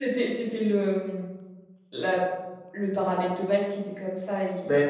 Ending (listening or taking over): listening